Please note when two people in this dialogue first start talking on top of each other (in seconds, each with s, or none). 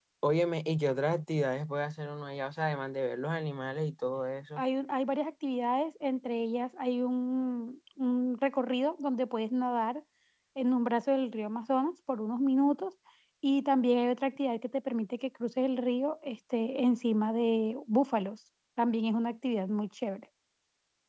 none